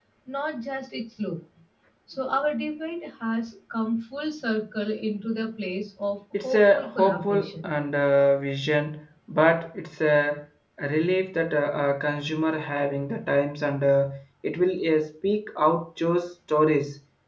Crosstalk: present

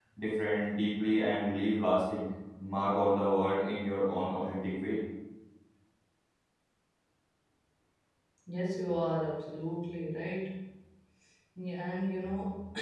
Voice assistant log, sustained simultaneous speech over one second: none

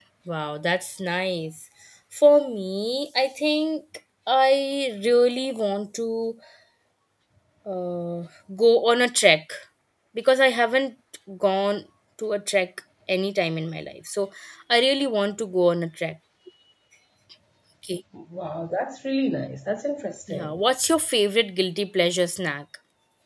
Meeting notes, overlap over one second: none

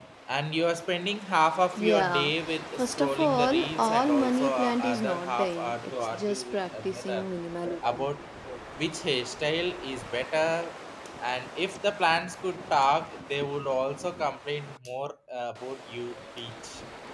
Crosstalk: present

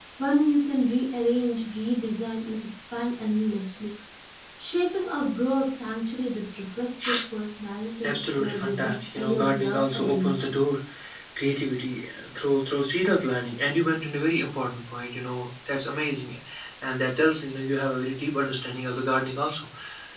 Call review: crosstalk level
present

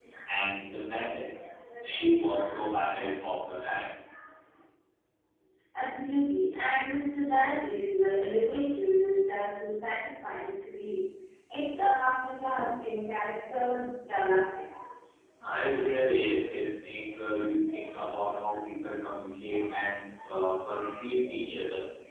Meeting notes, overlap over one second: none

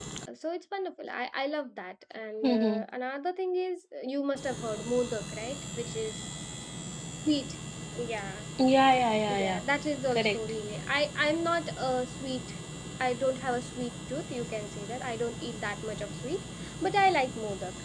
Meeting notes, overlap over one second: none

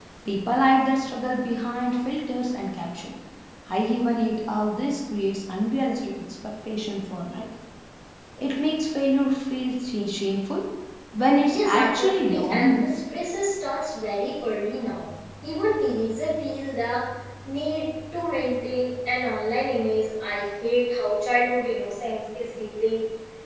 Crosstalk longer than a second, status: present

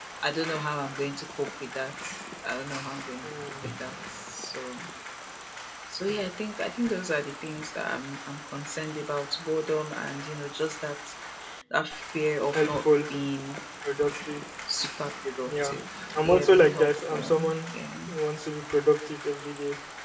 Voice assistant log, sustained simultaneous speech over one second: present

